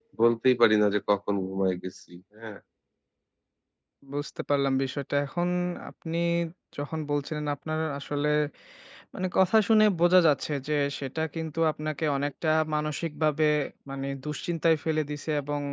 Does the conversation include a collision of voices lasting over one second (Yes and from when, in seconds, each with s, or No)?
No